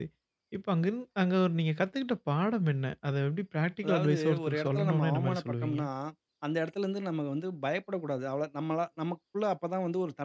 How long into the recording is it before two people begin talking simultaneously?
3.8 s

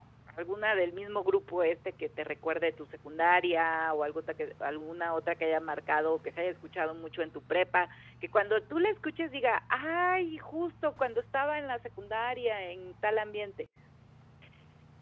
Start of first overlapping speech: none

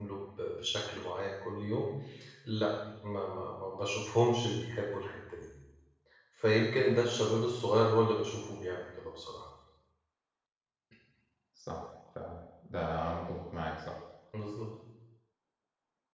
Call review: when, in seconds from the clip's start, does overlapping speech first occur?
none

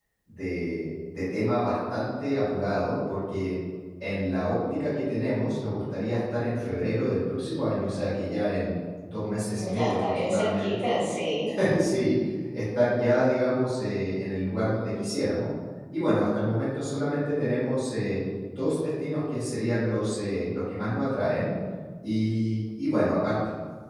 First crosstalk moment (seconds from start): 9.5 s

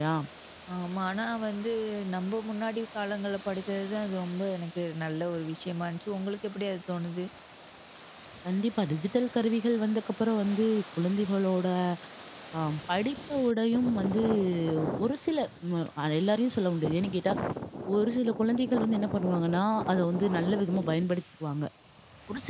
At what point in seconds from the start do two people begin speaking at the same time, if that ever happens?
none

